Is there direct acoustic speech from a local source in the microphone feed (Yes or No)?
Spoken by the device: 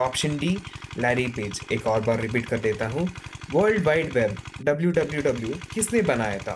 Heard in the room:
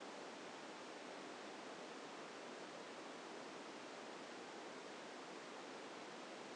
No